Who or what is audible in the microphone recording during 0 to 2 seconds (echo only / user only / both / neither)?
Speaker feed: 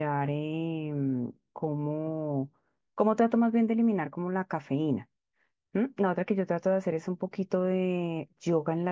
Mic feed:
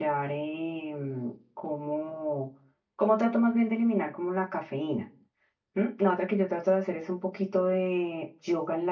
echo only